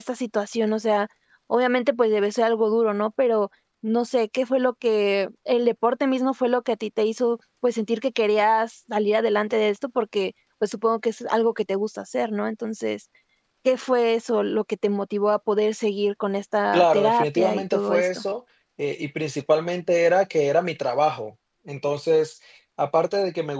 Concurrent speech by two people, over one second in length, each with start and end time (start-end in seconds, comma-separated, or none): 16.7-18.2